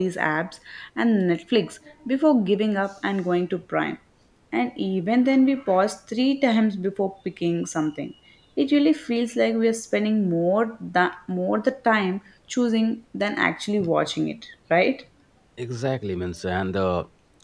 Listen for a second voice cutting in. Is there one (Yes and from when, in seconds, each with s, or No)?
No